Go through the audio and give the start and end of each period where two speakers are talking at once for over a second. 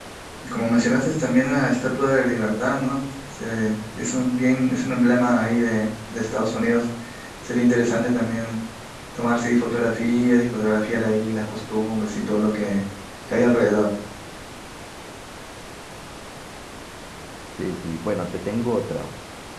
none

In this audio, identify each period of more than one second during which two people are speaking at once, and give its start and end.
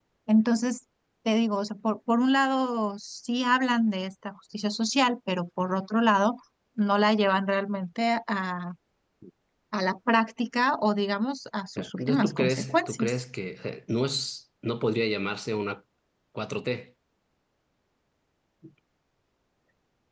11.8-13.1

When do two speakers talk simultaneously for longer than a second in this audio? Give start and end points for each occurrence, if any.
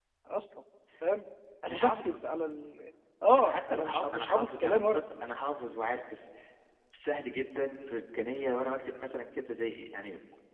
3.5-5.0

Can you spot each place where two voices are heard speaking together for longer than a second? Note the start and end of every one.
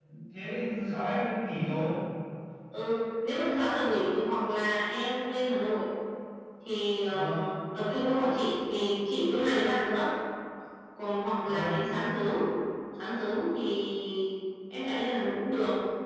none

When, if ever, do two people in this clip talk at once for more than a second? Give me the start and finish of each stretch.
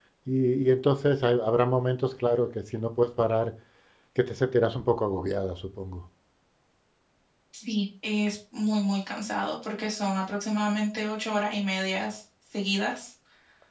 none

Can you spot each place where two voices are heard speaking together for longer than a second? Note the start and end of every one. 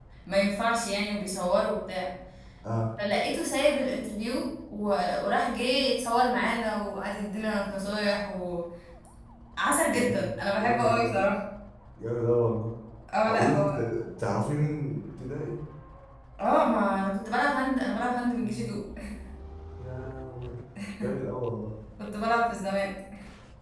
9.9-11.2

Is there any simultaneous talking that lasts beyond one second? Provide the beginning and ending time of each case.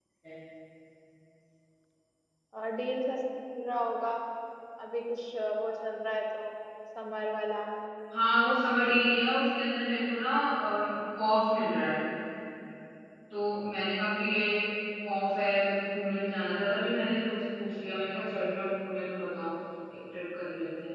none

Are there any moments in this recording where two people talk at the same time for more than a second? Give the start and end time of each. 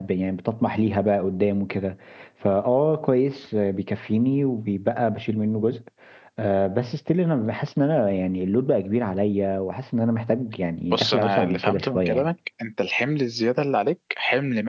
10.9-12.3

